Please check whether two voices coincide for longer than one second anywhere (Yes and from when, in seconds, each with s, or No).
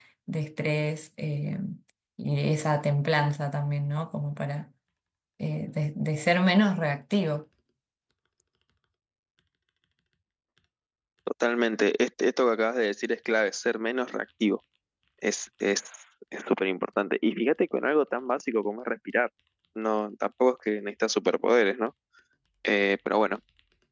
No